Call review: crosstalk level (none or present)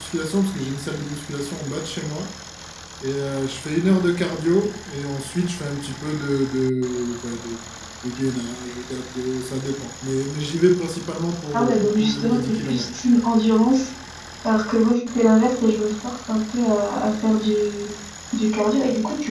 present